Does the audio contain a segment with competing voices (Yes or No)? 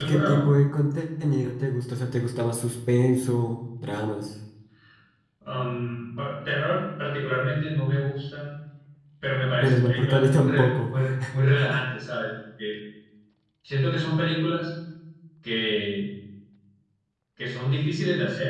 Yes